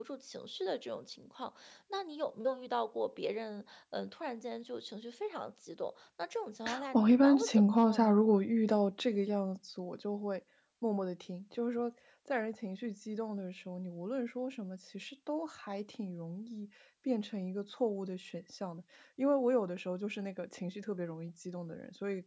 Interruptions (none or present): present